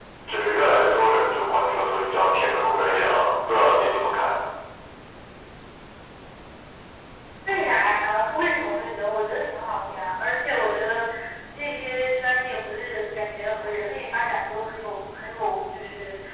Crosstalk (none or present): none